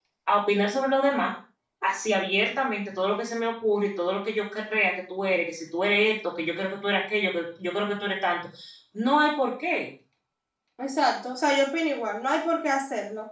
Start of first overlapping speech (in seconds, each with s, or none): none